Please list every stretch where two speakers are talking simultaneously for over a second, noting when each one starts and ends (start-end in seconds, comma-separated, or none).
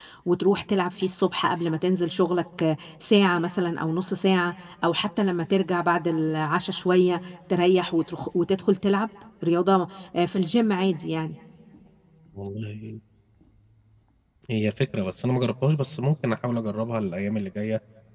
none